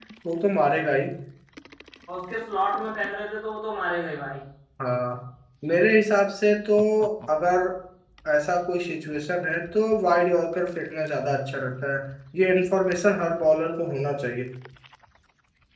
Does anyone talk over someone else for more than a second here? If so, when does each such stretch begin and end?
none

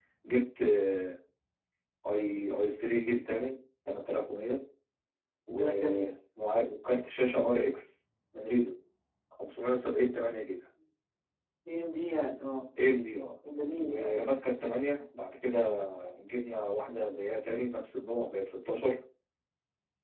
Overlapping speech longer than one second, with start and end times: none

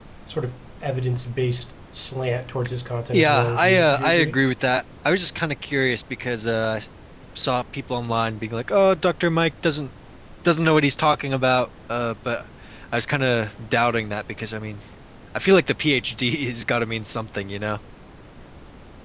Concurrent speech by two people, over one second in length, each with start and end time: 3.1-4.3

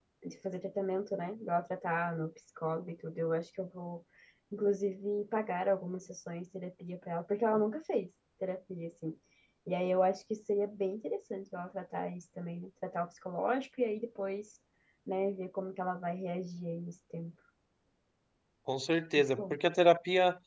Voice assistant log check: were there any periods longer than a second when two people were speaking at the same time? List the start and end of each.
none

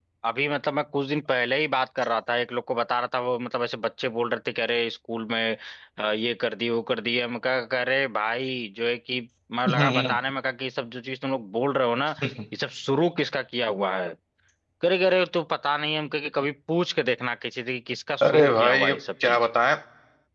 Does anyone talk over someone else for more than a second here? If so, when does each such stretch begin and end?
18.2-19.5

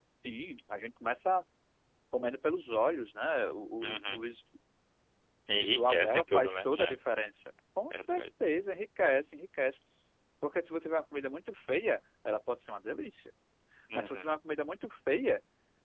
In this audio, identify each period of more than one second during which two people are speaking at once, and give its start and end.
5.5-7.0

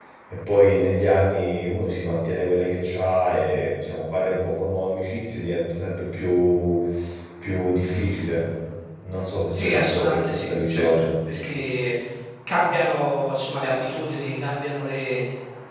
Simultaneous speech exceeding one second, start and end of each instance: 9.5-11.1

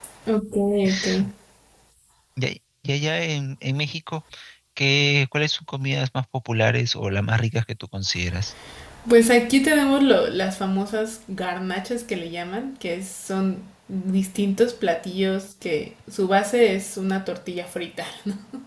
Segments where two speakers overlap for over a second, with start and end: none

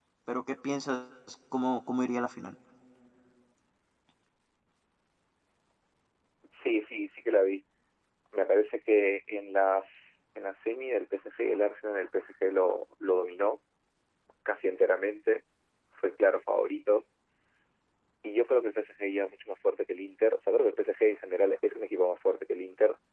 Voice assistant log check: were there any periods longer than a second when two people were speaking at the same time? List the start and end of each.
none

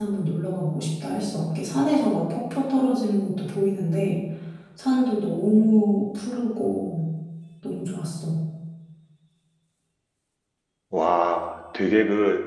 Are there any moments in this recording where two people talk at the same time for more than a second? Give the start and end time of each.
none

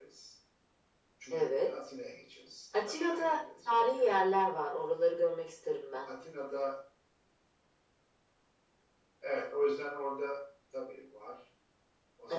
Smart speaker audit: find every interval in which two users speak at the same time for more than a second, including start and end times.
2.9-4.1

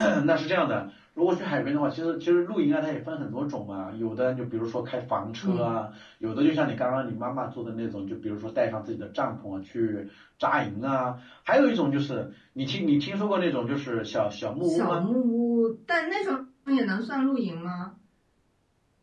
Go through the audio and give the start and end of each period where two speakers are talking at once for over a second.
none

